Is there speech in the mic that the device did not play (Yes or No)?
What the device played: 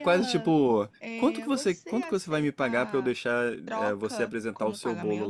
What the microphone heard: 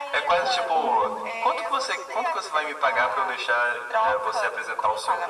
Yes